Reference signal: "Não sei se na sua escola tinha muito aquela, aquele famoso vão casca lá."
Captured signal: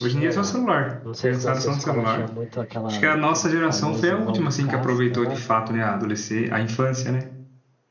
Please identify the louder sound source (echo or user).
user